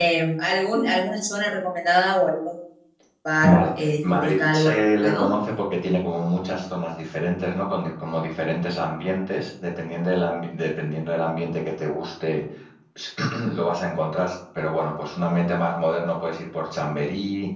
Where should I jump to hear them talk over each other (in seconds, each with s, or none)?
3.4 s